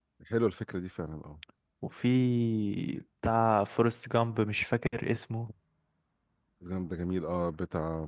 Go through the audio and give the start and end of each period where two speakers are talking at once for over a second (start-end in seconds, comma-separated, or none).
none